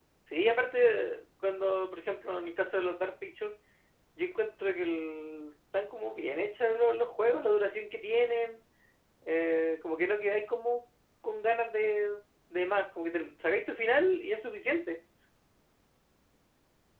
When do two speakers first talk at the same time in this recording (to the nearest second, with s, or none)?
none